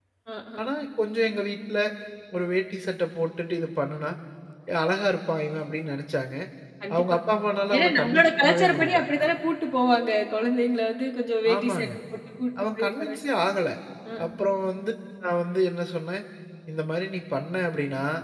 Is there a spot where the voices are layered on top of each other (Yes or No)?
Yes